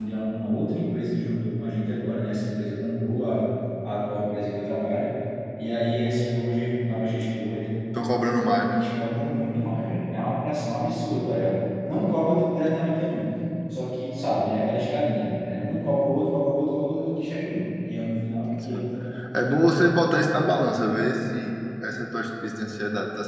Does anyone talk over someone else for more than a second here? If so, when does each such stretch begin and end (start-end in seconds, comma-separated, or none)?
none